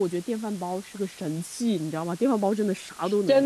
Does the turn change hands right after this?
Yes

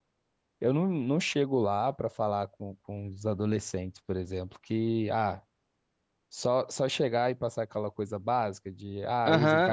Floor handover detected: Yes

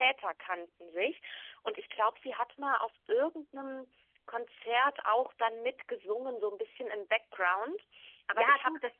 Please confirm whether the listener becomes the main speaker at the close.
Yes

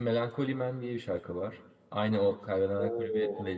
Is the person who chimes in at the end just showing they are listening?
No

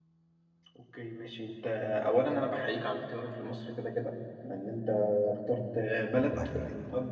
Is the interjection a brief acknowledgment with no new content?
Yes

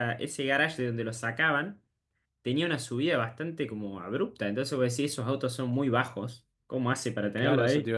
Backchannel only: No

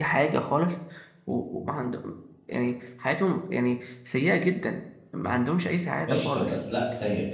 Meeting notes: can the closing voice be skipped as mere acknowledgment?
No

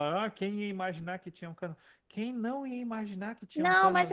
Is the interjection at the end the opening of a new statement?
Yes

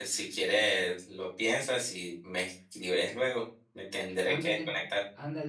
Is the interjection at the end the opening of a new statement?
Yes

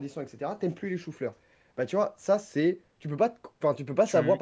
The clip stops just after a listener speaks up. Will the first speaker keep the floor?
Yes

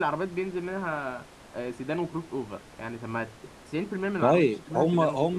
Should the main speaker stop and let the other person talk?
Yes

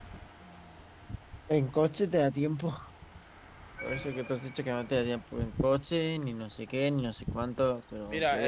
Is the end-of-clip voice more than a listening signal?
Yes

